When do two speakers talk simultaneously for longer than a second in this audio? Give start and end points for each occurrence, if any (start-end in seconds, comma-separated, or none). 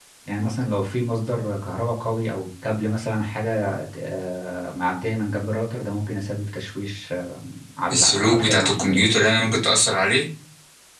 7.9-9.2